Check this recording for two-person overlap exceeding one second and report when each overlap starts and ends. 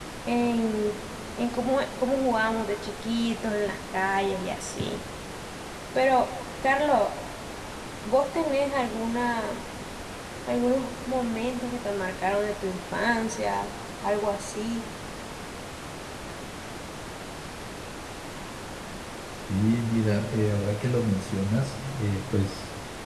none

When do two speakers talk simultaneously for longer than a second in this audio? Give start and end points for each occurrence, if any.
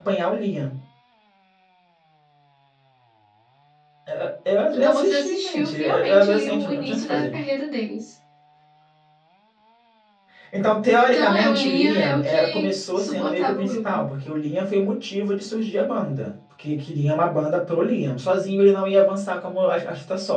4.7-7.3, 11.0-14.0

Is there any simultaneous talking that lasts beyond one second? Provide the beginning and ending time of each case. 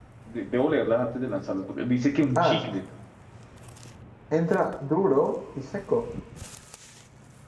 none

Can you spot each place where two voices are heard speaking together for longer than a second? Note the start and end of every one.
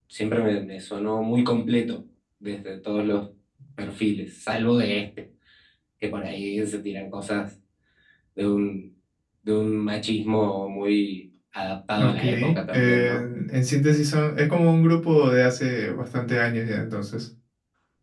12.0-13.2

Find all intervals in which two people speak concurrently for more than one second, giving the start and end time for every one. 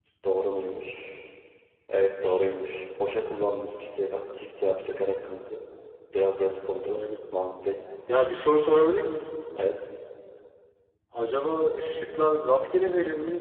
none

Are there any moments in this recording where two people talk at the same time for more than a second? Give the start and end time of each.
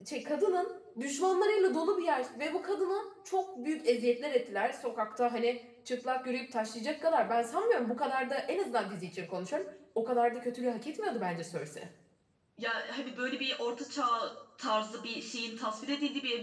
none

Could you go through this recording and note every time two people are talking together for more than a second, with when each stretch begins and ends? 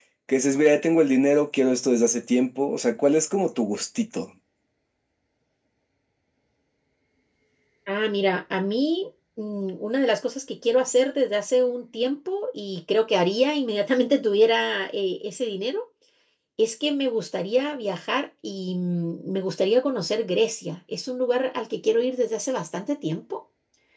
none

